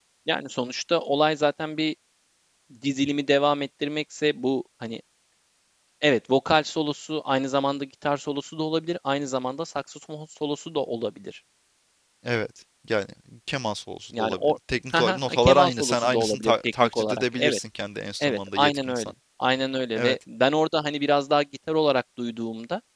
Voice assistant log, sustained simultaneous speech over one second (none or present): present